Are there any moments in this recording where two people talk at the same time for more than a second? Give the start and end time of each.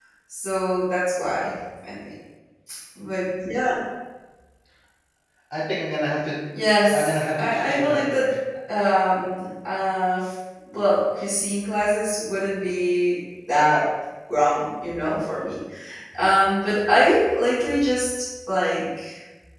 6.9-8.2

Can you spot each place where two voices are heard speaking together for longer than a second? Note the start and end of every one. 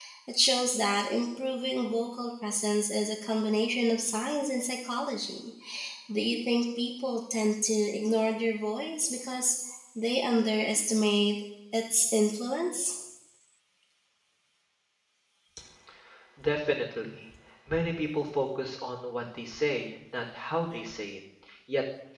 none

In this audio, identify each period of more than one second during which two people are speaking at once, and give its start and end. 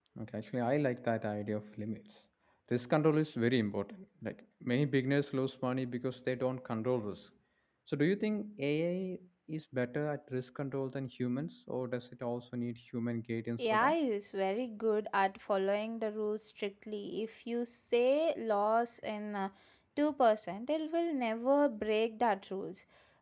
none

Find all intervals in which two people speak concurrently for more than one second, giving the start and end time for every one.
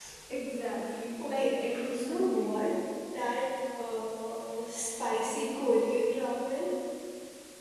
1.2-2.6

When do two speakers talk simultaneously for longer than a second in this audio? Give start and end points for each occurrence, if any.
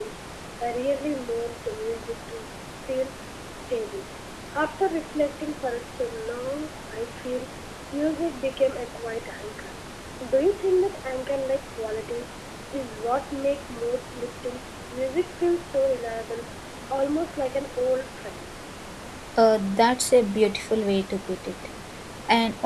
none

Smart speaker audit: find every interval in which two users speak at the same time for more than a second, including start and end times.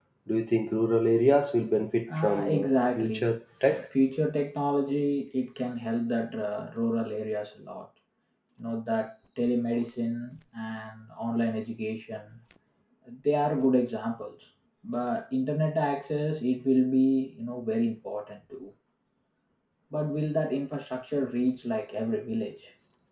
2.1-3.3

